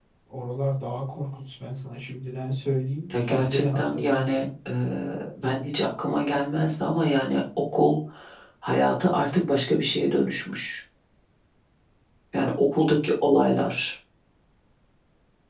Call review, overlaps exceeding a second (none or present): present